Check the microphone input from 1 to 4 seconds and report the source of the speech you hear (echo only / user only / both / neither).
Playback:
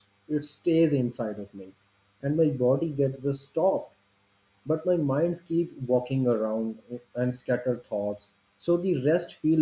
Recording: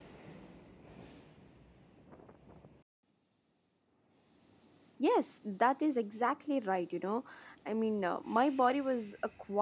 neither